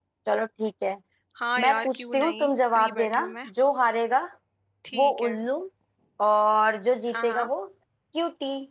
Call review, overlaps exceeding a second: present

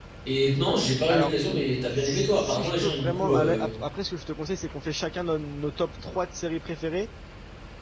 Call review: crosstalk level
present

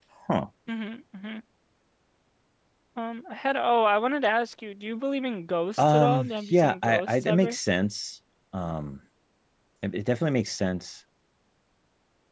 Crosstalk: present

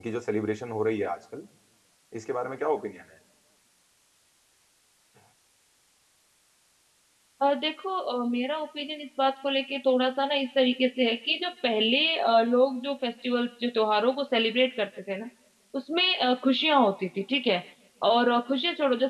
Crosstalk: none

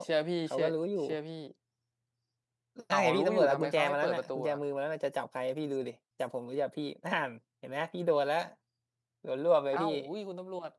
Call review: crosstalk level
present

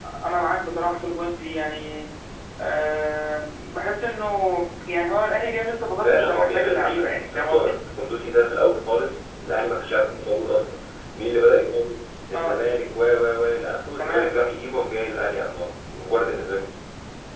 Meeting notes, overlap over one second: present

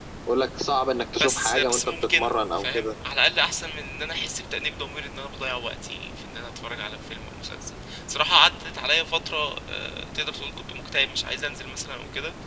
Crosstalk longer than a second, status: present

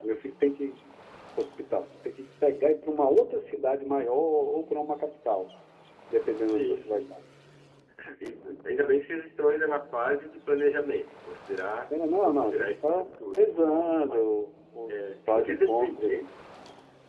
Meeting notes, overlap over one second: present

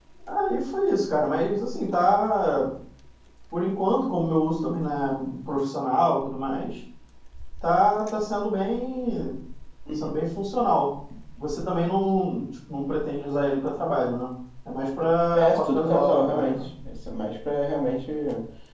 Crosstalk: present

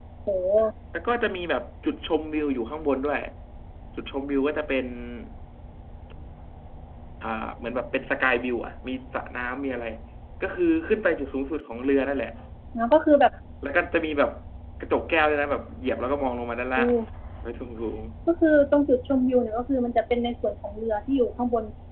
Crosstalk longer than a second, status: none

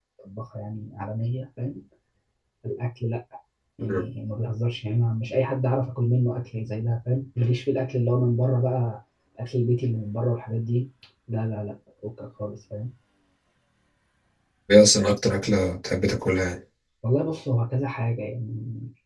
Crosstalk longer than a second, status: none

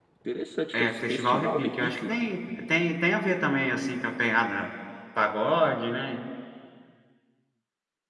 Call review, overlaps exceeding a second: present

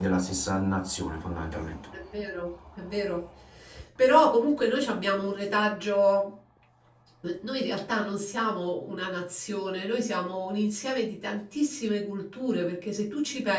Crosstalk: none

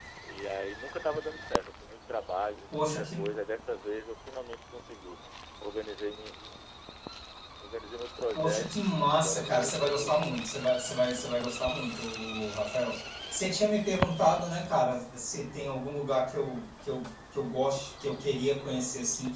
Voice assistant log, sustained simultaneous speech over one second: present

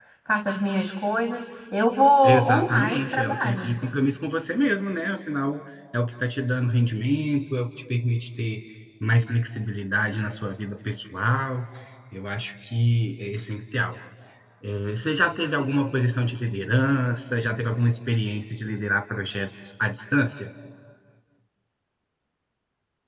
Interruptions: present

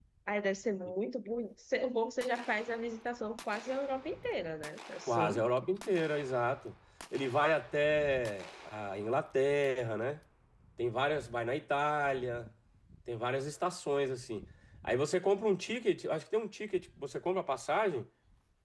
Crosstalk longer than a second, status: none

